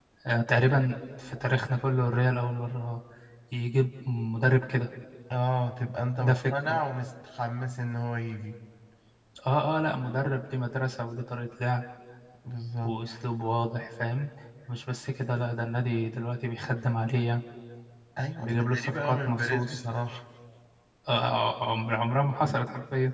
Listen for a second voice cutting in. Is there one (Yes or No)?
Yes